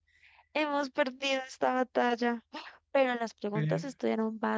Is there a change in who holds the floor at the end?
No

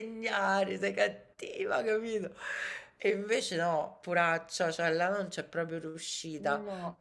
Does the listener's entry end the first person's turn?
No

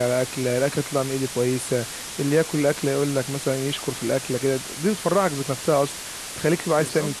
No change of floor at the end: Yes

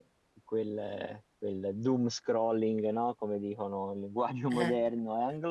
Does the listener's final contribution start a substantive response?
No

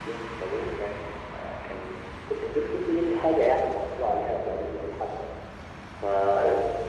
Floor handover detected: No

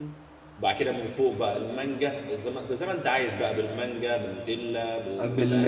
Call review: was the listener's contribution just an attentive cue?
No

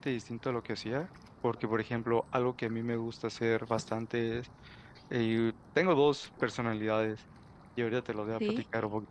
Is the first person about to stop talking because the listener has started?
No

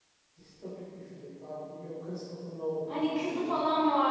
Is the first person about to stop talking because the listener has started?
Yes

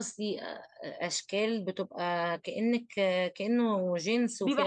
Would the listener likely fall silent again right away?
No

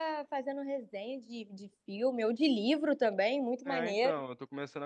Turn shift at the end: Yes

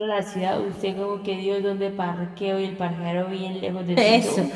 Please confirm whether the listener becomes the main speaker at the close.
Yes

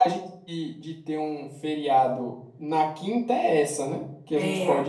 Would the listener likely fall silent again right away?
Yes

